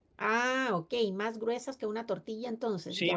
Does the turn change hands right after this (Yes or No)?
Yes